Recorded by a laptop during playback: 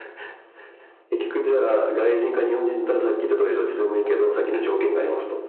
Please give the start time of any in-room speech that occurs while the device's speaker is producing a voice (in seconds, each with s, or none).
none